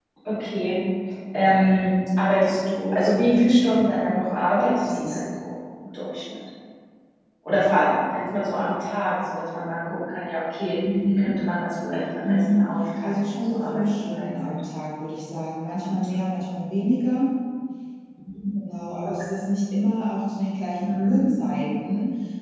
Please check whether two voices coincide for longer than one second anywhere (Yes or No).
Yes